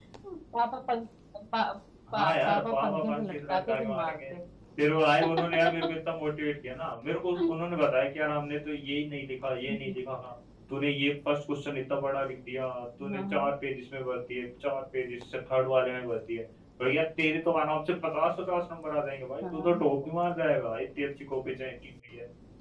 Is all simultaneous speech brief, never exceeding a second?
No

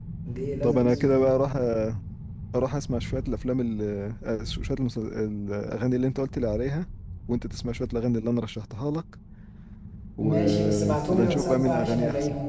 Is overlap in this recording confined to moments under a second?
No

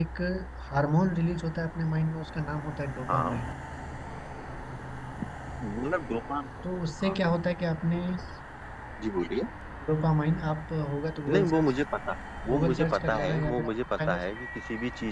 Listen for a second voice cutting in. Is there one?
Yes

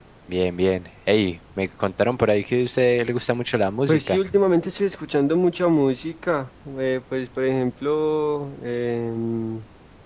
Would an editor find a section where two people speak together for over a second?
No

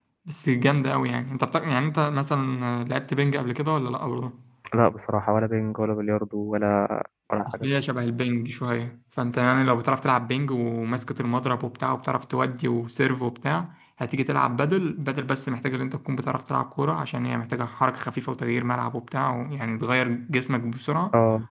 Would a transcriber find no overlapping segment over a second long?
Yes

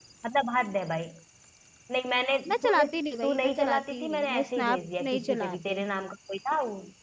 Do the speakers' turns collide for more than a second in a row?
Yes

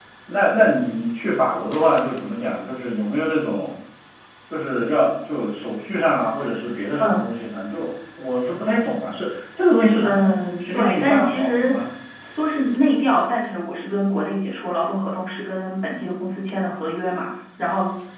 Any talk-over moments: Yes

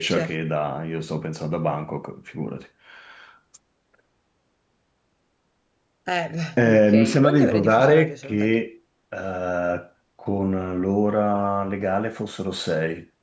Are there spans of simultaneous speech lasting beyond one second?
Yes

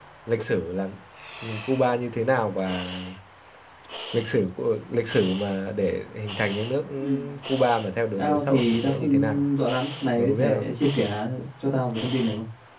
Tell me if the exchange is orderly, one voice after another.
No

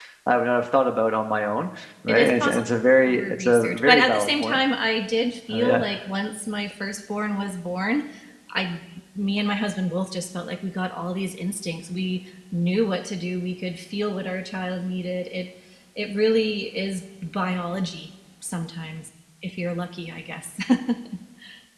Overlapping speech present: Yes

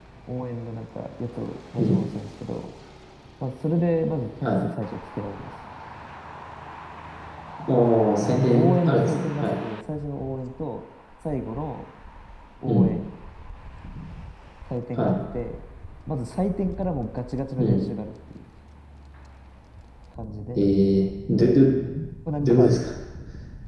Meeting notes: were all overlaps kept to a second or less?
No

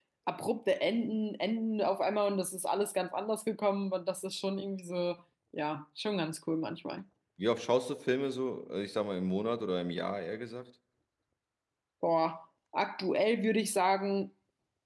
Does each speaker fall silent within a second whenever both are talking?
Yes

